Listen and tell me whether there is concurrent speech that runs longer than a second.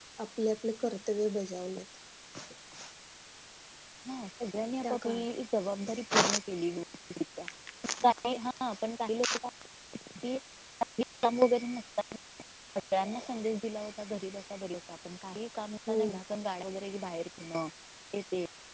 No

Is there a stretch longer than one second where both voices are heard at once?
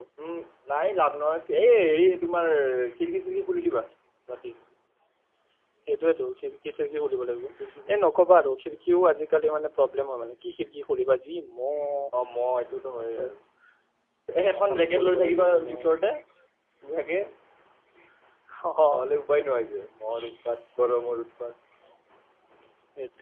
Yes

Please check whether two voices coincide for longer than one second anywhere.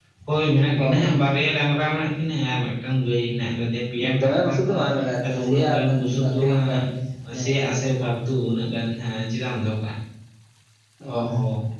Yes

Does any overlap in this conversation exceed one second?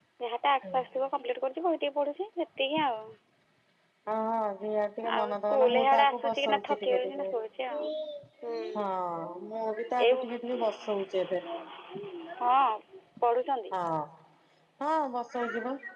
Yes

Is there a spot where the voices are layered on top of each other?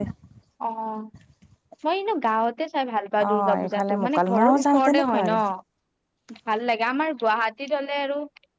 Yes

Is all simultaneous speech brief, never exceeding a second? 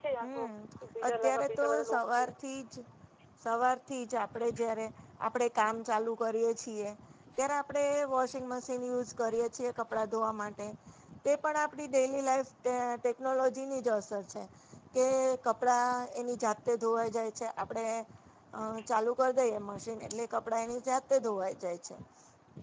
No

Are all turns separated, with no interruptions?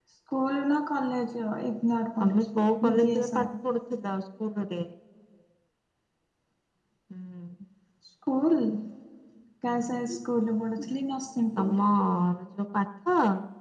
No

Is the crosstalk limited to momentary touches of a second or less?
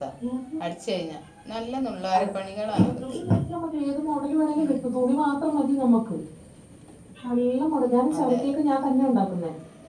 Yes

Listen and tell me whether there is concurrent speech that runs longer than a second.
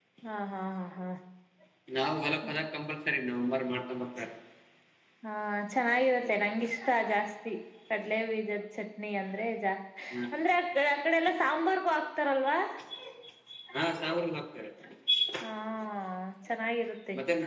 No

